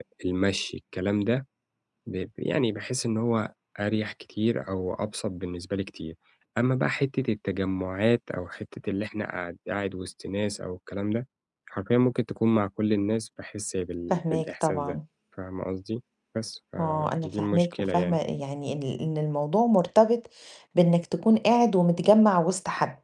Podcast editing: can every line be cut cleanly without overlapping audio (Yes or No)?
No